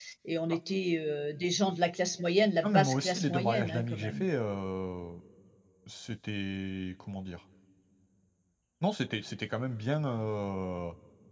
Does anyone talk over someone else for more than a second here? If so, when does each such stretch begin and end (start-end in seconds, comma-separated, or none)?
2.6-4.2